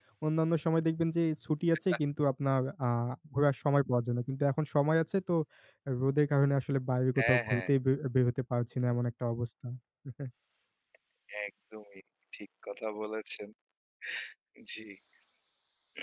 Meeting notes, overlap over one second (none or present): none